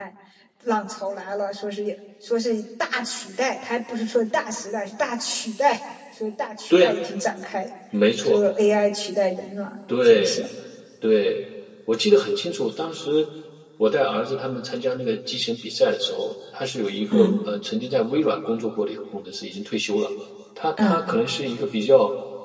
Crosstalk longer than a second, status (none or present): none